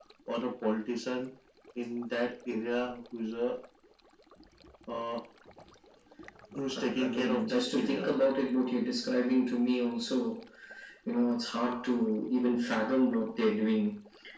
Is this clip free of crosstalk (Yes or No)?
No